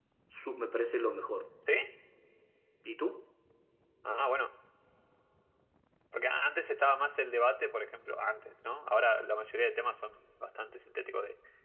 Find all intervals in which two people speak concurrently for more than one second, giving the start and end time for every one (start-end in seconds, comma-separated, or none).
none